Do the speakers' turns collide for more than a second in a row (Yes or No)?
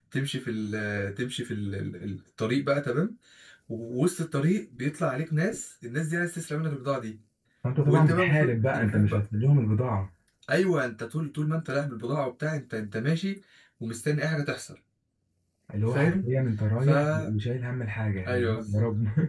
Yes